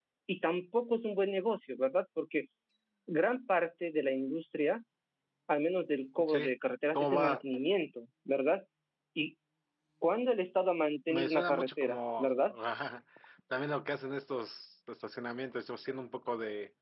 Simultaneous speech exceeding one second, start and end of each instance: 11.1-12.4

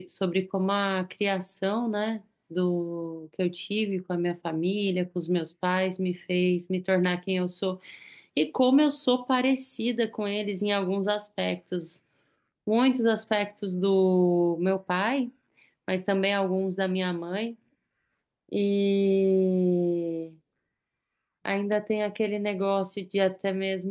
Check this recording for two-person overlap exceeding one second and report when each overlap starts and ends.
none

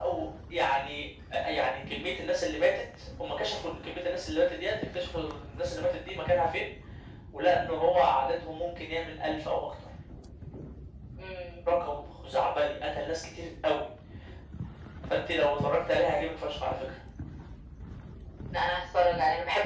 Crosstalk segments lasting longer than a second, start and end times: none

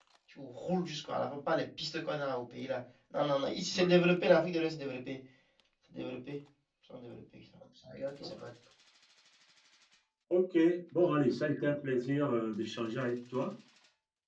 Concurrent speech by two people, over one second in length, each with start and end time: none

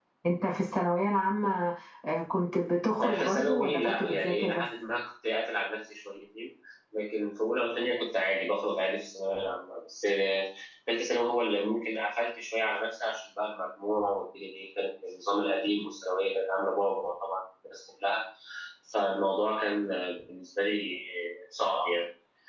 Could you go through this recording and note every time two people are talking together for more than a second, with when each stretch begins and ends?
3.0-4.7

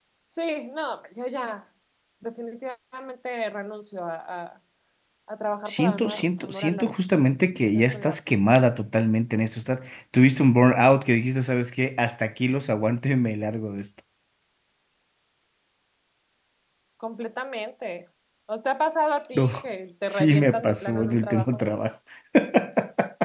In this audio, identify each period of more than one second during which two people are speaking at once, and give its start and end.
5.7-6.9, 20.1-21.6

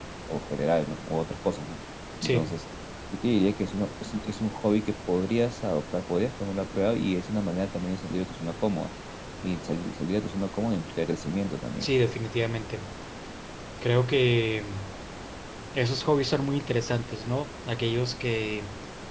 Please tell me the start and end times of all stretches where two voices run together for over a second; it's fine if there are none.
none

